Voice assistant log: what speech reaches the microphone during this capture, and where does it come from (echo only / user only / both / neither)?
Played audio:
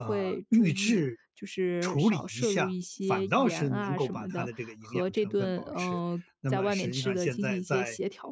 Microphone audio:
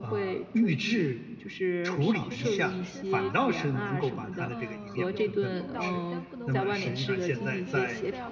both